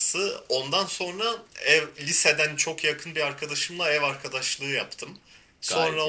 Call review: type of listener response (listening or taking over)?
listening